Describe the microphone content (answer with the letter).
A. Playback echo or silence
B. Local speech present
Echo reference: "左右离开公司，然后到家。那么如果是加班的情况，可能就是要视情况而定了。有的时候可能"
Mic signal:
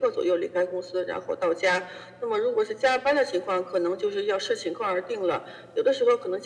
A